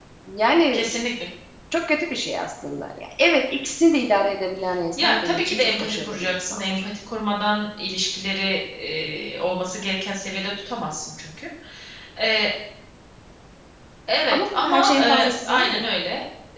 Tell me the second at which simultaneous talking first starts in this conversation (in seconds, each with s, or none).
5.0 s